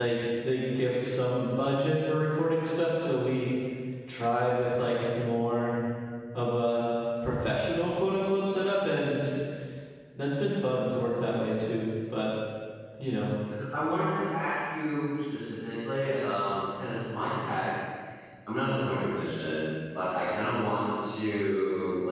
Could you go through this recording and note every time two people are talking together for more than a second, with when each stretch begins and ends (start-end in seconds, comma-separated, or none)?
none